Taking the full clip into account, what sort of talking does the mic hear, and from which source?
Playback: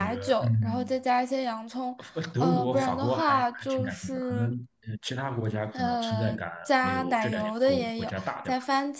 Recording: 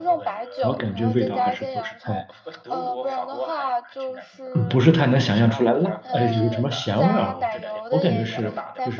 both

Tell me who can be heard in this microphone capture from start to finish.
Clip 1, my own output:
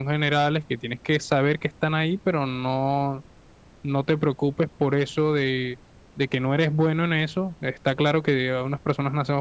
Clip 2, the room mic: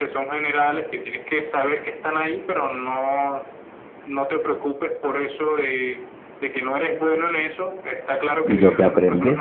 both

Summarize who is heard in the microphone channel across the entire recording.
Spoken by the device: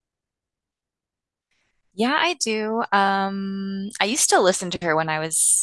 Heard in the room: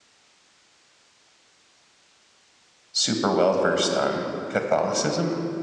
user only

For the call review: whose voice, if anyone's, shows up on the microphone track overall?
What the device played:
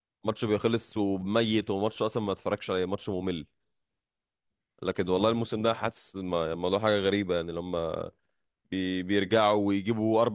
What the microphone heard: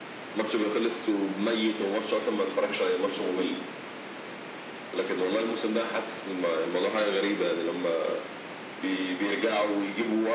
echo only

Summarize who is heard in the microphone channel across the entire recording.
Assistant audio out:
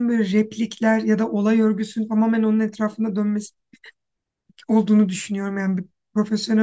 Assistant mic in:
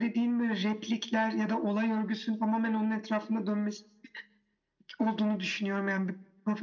echo only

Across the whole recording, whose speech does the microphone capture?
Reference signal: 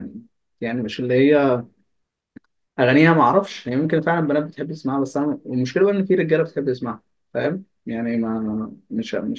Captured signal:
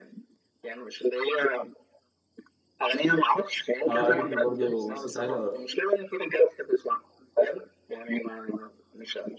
both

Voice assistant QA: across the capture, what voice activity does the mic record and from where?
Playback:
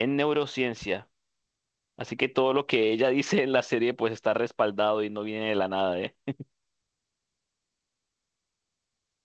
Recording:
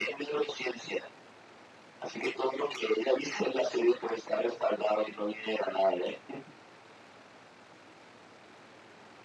echo only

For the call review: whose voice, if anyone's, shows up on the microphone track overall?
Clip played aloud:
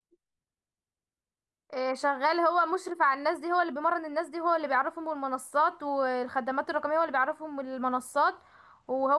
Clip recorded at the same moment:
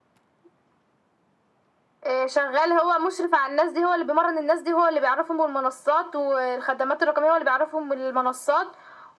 echo only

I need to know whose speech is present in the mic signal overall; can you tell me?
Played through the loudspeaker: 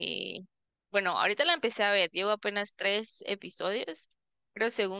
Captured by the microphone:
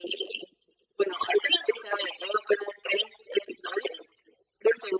echo only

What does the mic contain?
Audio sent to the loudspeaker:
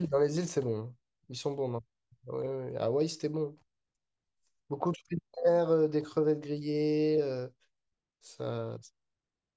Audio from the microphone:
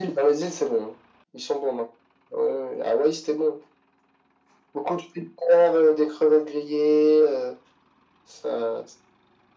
echo only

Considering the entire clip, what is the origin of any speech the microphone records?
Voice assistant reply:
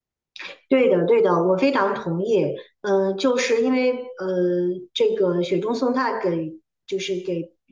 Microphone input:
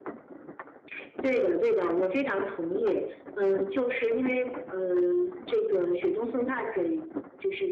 echo only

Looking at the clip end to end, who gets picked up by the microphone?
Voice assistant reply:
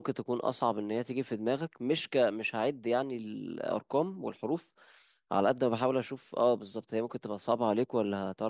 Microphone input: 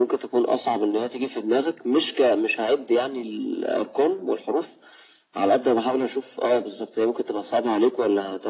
echo only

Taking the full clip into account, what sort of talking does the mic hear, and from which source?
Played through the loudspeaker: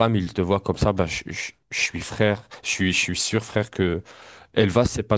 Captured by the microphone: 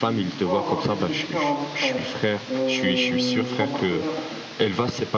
both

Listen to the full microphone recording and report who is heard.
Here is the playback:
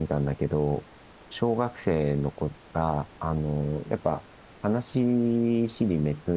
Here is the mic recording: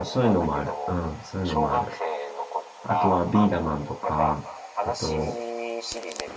both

